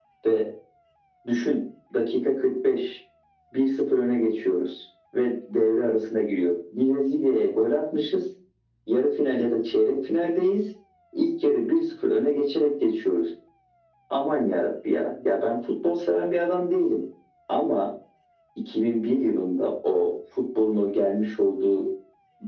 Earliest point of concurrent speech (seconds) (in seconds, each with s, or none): none